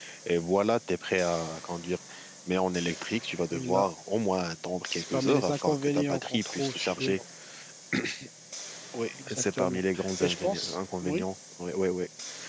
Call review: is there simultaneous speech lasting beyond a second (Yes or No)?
Yes